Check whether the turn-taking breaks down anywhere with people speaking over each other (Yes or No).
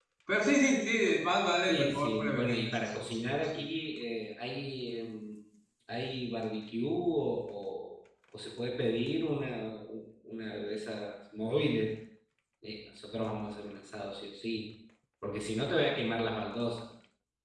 Yes